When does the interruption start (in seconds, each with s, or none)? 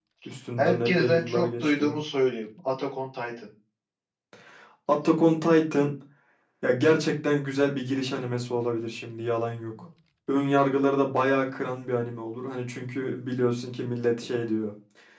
0.6 s